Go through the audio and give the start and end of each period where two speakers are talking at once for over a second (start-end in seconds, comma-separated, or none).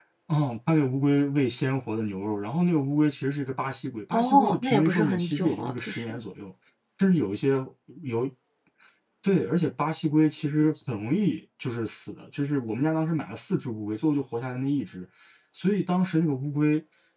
4.1-6.2